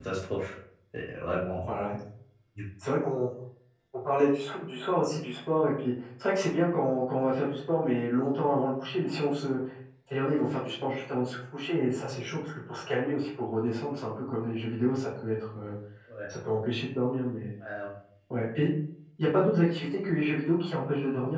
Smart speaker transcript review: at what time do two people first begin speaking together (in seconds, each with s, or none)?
none